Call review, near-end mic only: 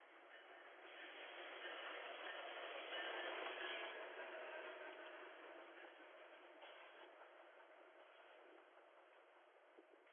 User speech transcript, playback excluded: none

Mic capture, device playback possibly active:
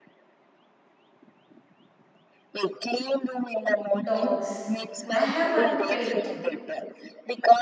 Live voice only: Dogs. I have one pet.

